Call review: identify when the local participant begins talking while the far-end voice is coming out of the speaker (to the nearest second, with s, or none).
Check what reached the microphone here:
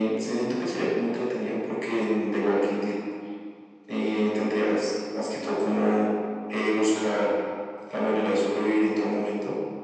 none